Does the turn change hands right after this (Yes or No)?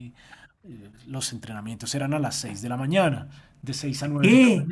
Yes